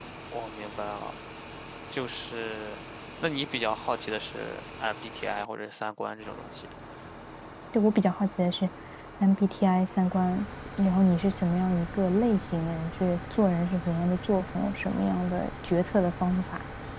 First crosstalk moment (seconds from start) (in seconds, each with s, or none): none